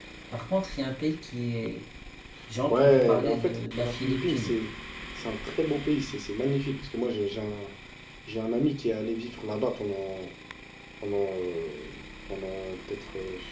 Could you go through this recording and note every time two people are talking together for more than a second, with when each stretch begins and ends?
2.7-4.6

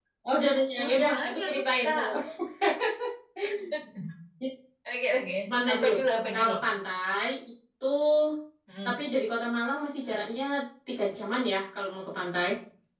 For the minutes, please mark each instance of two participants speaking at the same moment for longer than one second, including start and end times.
0.8-2.0

